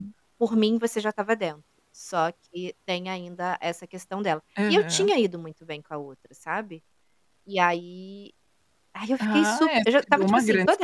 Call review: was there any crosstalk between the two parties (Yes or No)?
Yes